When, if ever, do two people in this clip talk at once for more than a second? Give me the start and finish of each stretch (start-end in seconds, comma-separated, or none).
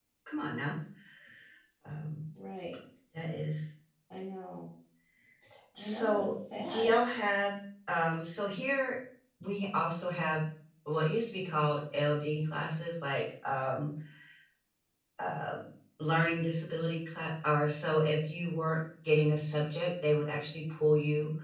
5.8-7.0